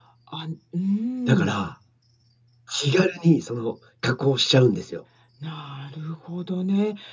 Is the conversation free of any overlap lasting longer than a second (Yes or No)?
Yes